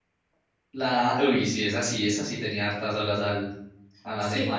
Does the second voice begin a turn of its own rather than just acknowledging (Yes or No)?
Yes